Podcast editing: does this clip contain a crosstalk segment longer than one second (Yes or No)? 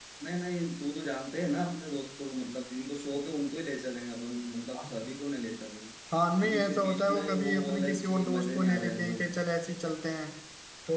Yes